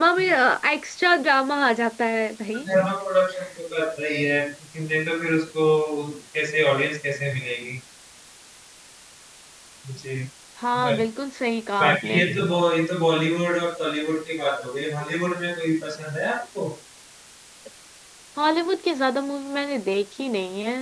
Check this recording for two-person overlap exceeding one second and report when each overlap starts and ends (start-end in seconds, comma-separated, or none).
none